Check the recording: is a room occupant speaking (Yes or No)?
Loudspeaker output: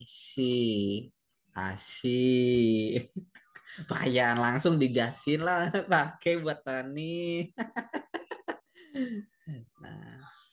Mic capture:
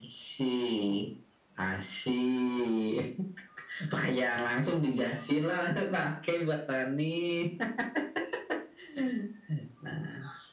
No